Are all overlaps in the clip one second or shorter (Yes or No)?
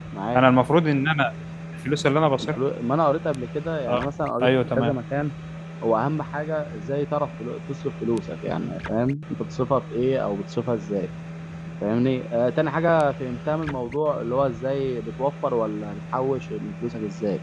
Yes